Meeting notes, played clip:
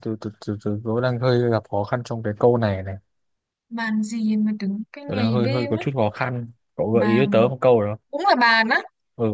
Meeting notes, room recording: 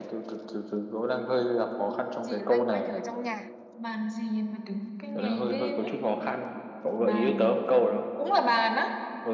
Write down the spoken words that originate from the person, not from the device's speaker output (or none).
chỉ loanh quanh ở trong nhà.